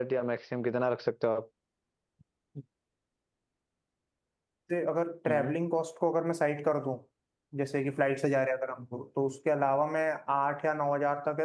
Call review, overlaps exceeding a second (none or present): none